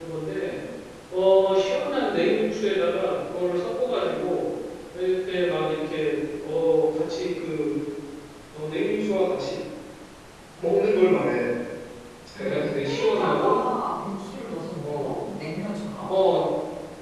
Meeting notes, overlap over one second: present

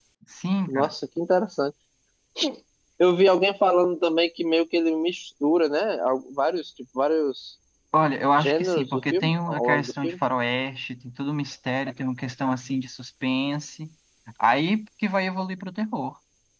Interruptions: present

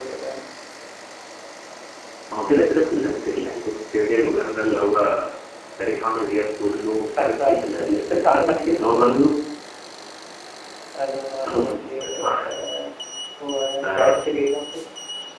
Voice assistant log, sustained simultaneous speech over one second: present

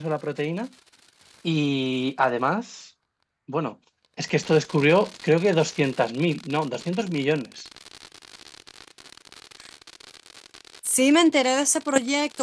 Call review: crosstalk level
none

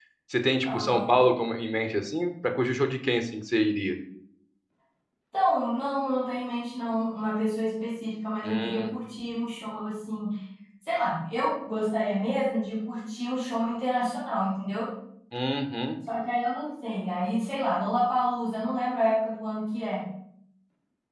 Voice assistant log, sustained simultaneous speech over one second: none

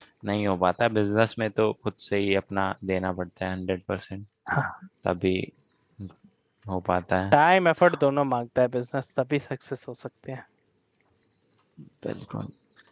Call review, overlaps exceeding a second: none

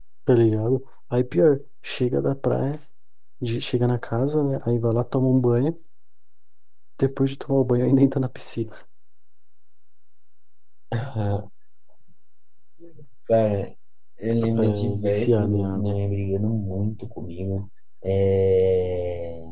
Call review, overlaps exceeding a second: present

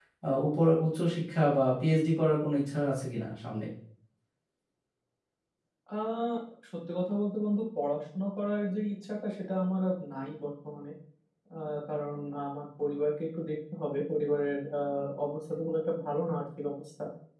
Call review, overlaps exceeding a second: none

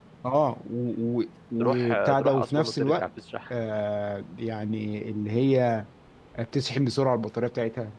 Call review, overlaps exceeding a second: present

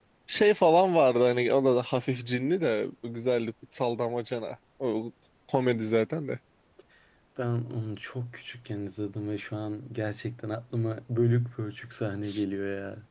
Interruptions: none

